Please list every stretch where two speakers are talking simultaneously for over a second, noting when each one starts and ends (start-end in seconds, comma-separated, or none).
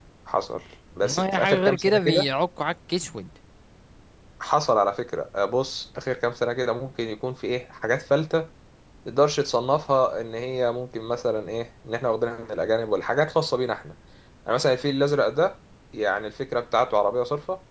1.0-2.3